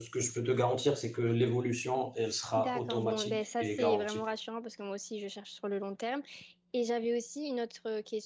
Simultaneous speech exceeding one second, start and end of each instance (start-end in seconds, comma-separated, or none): 2.6-4.2